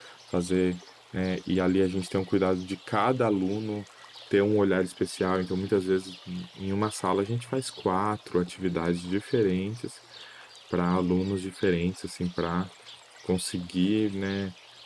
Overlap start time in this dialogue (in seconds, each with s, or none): none